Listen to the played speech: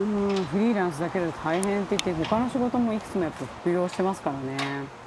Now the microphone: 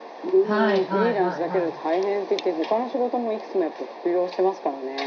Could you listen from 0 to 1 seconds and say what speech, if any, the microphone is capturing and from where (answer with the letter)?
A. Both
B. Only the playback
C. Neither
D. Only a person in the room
A